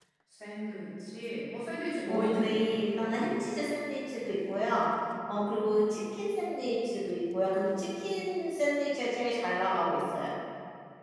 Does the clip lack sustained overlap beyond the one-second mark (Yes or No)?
No